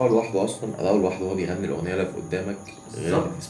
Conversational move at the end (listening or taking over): taking over